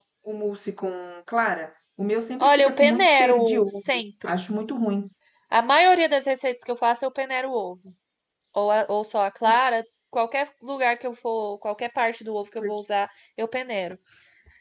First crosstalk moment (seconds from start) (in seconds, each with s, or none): 2.4 s